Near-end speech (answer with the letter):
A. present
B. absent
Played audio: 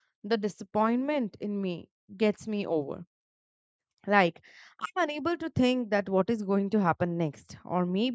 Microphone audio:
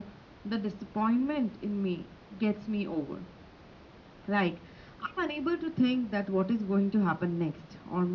B